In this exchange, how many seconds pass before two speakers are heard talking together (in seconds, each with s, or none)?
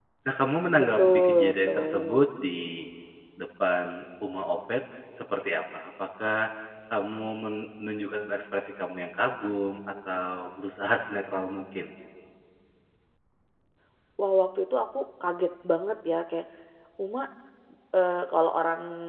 1.0 s